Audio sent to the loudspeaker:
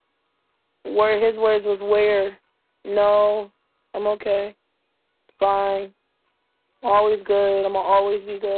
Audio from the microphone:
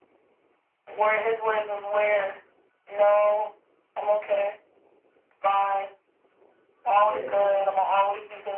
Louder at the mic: echo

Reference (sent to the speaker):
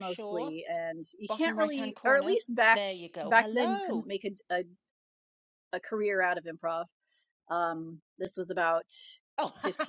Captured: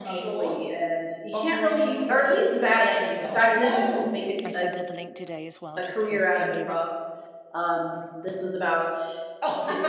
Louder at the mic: echo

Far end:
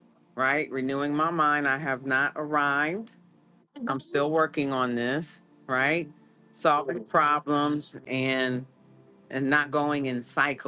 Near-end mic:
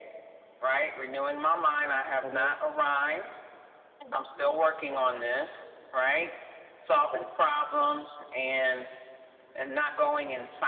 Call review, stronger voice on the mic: echo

